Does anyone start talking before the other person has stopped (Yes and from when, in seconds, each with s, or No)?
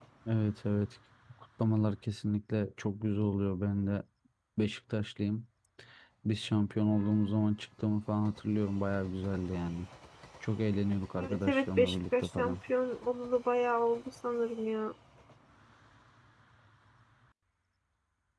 Yes, from 11.2 s